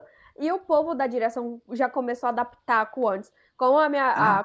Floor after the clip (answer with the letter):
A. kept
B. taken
A